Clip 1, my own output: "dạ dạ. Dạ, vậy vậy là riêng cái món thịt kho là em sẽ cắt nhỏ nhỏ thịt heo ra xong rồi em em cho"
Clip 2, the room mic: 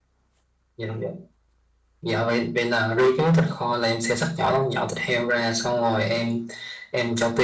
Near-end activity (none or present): none